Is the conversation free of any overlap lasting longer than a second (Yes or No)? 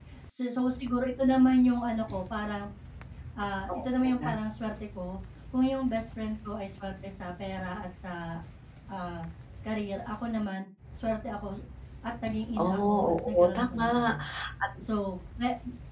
No